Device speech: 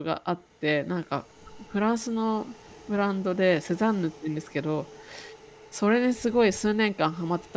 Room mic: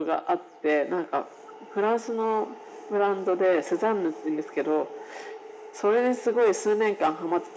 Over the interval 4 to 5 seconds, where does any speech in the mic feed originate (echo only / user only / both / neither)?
echo only